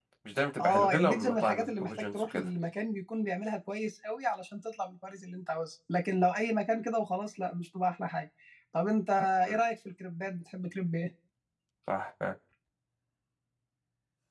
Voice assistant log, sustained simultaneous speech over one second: present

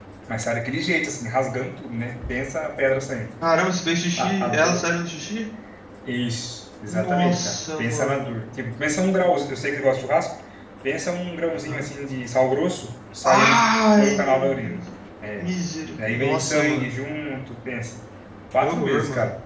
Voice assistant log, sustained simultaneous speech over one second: present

